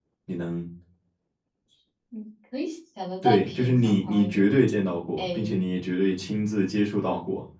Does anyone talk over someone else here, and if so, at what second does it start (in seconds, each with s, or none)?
3.2 s